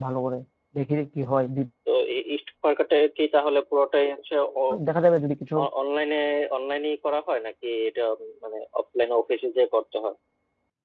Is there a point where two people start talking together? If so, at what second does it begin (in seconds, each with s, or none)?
none